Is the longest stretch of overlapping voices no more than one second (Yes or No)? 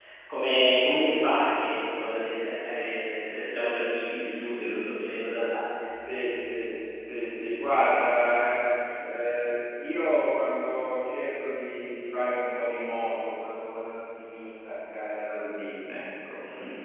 Yes